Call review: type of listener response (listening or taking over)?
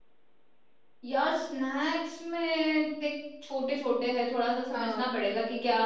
listening